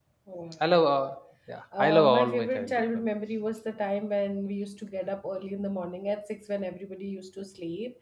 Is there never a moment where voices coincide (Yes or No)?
No